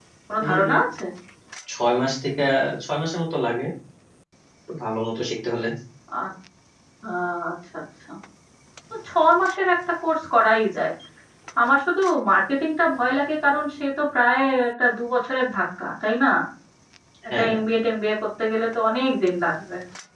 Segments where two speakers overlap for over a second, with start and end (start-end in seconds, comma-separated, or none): none